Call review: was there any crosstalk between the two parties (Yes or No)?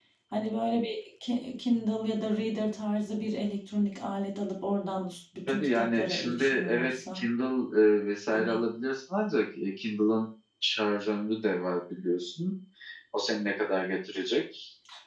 Yes